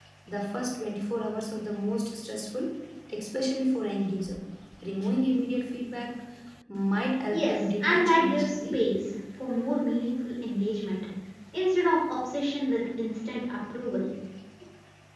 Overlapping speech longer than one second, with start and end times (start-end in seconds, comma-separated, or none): 7.3-8.8